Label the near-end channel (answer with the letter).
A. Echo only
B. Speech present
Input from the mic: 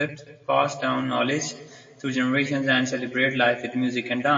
B